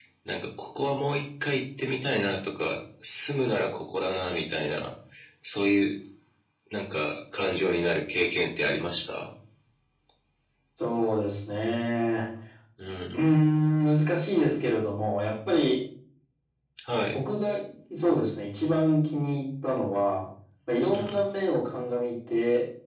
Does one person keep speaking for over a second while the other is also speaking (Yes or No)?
No